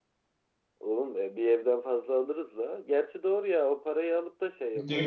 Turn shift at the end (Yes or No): Yes